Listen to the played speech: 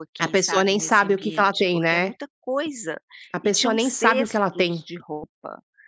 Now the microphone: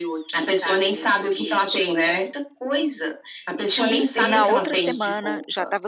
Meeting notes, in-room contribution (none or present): present